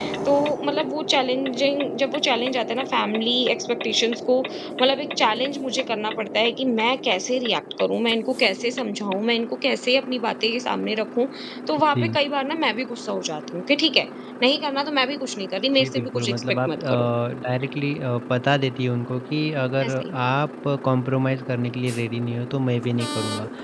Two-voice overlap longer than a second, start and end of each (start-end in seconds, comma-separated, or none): 15.8-17.1